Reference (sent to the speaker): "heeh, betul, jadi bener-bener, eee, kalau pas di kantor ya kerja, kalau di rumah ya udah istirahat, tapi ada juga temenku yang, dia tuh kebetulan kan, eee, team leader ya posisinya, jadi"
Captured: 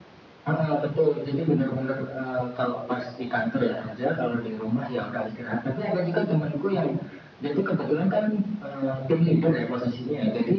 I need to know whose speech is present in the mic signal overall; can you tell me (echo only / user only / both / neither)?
echo only